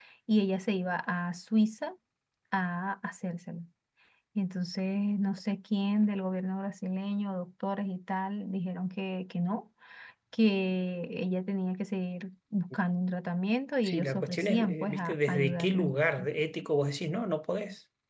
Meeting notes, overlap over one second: present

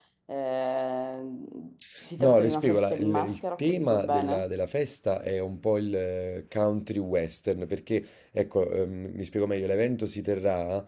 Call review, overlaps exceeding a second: present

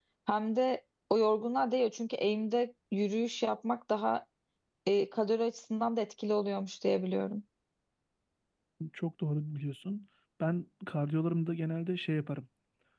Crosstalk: none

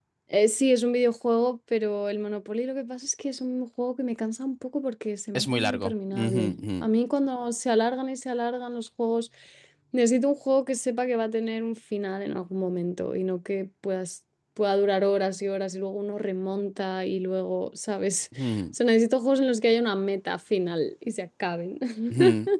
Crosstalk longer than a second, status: present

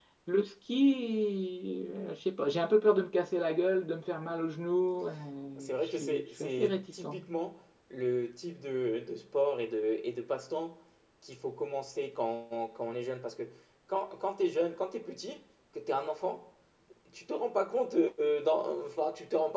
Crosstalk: present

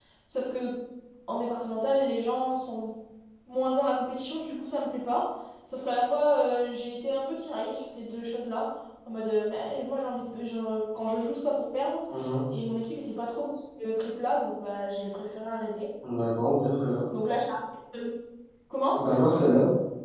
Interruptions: none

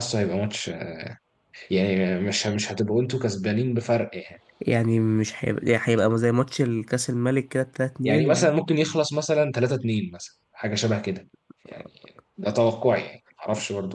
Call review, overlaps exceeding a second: none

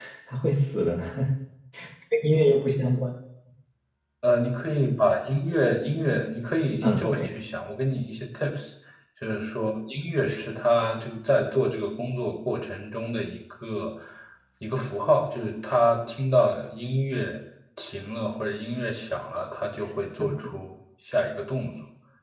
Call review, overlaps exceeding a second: none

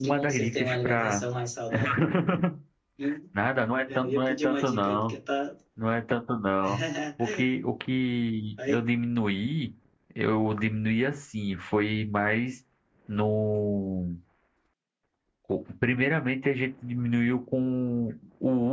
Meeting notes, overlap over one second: present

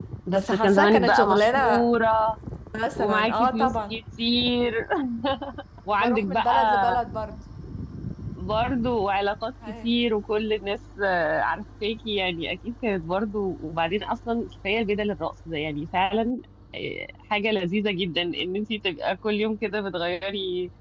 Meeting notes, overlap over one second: present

